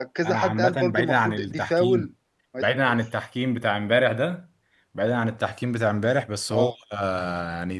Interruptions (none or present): present